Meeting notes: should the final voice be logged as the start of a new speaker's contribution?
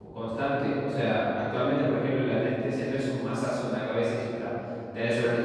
No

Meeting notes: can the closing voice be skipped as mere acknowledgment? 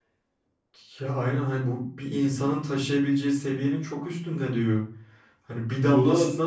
Yes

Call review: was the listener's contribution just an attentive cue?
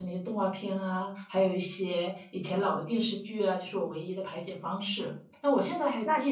Yes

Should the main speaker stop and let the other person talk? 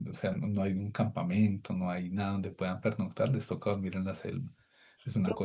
Yes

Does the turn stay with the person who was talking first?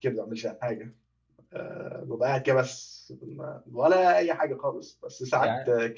Yes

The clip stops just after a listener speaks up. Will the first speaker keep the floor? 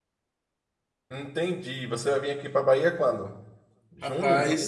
No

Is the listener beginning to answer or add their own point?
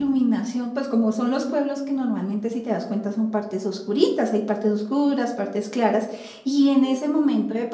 No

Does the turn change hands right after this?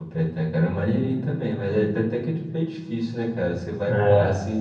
No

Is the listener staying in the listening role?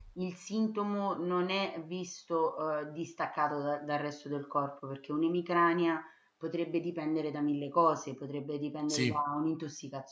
Yes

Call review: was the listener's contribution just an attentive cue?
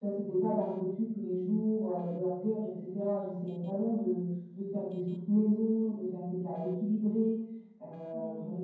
No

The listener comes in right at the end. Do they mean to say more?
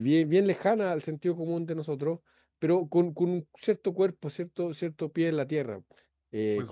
Yes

